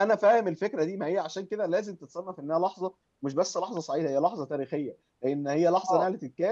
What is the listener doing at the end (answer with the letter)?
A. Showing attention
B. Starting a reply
A